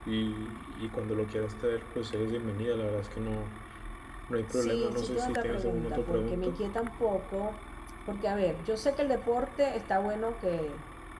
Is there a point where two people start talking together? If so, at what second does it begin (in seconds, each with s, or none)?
4.5 s